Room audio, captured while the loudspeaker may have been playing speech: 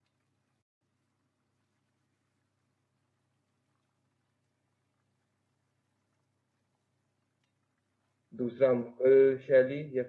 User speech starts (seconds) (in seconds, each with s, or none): 8.4 s